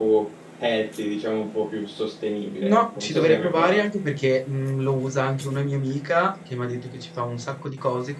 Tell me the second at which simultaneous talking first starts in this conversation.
2.6 s

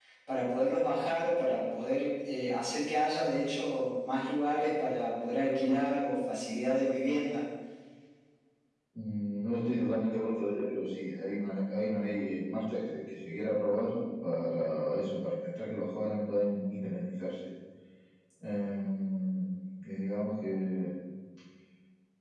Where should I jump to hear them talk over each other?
none

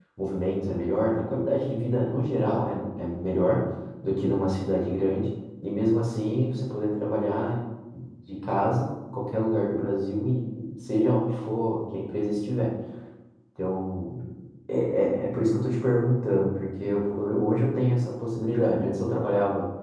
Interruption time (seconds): none

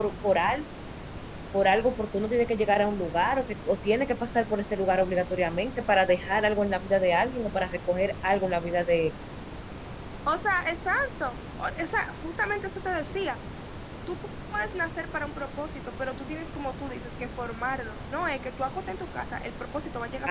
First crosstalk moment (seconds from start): none

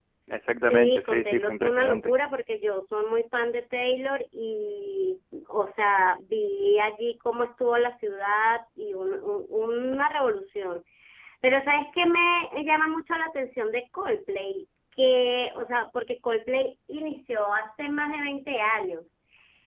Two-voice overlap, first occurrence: 0.7 s

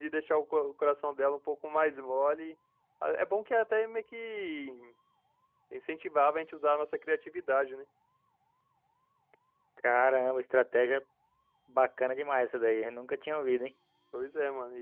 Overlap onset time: none

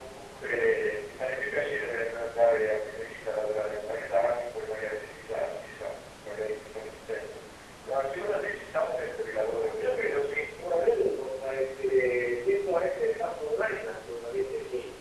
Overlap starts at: 9.6 s

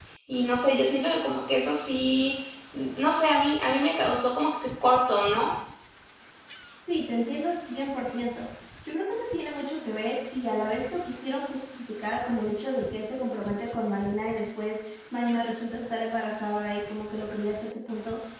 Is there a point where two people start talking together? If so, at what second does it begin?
none

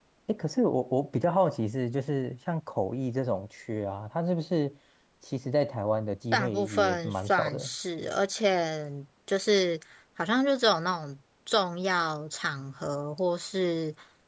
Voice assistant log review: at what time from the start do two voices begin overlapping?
6.3 s

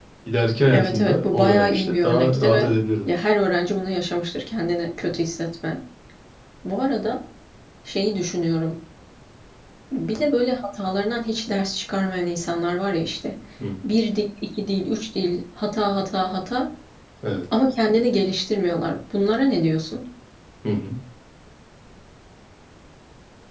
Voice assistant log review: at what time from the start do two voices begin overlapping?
0.7 s

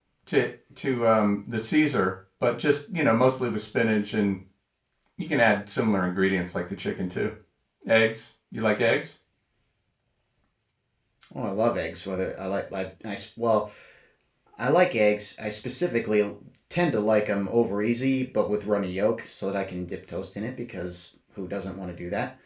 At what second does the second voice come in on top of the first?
none

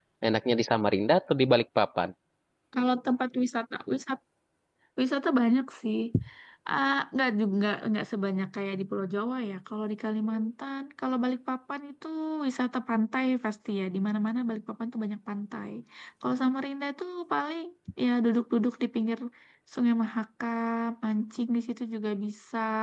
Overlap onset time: none

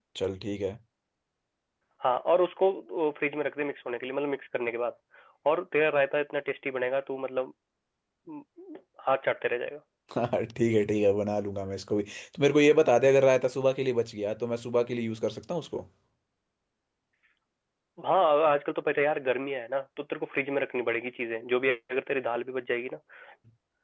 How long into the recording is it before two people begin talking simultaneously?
none

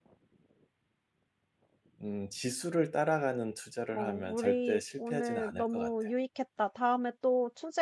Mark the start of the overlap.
3.9 s

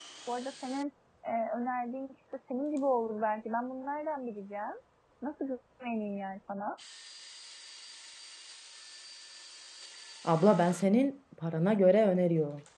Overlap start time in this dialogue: none

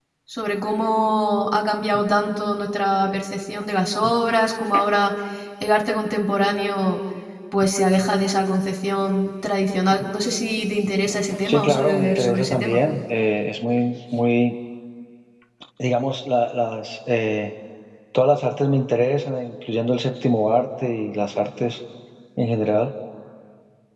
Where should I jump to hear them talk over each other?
11.4 s

